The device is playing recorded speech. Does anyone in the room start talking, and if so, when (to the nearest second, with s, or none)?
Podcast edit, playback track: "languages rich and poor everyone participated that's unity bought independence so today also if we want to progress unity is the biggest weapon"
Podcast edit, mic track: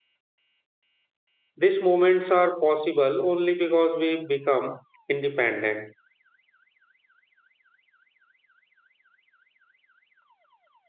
2 s